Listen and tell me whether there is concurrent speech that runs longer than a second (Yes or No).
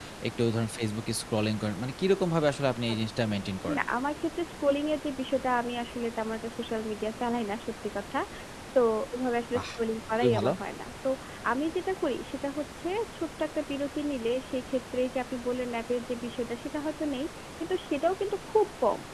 No